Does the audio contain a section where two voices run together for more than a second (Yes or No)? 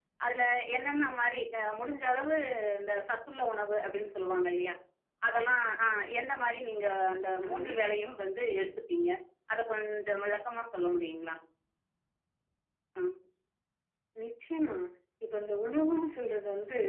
No